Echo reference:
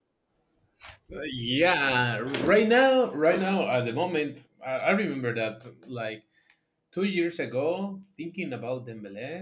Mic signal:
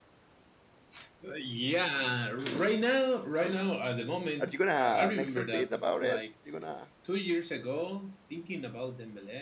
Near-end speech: present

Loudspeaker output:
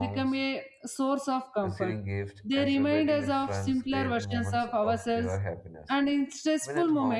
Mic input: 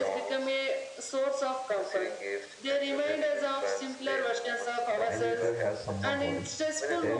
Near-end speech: present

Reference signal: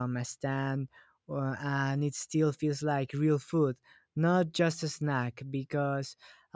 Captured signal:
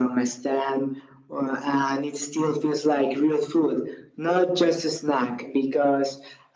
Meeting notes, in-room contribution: none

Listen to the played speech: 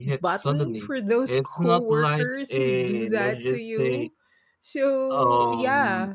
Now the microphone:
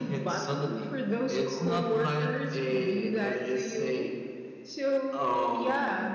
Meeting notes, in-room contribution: none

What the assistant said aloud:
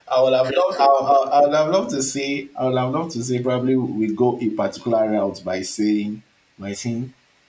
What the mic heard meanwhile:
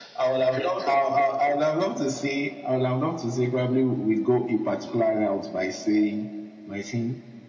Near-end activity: none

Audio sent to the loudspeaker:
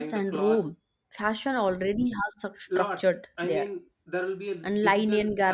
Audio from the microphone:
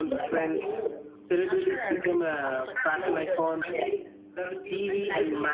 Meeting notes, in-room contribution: present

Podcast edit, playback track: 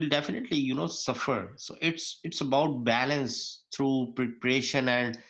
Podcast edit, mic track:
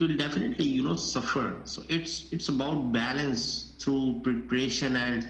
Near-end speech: none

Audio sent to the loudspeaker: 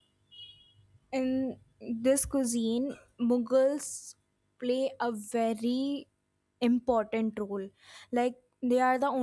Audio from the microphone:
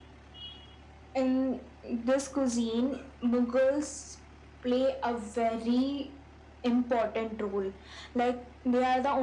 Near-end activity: none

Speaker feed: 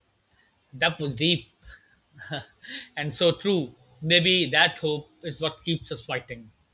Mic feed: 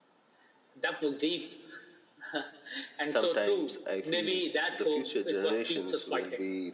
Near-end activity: present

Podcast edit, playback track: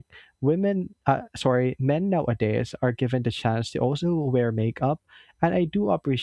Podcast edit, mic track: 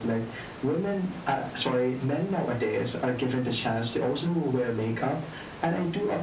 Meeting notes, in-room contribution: none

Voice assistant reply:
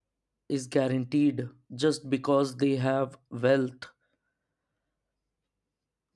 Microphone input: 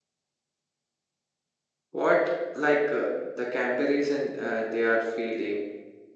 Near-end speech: present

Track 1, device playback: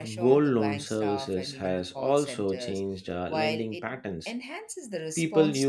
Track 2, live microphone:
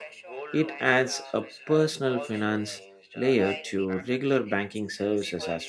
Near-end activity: present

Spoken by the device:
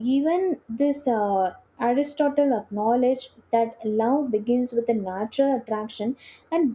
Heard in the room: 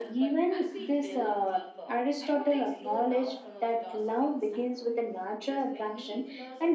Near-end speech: present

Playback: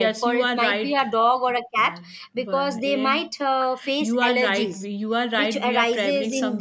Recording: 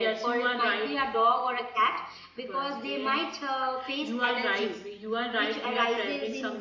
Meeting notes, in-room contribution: none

